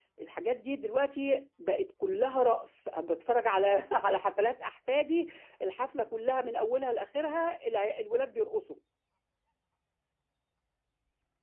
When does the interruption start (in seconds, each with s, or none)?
none